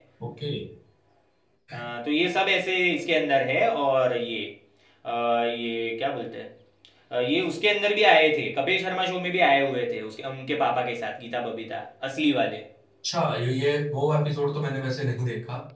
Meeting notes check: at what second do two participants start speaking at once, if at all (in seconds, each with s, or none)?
none